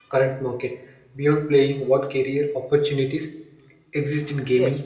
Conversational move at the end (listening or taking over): taking over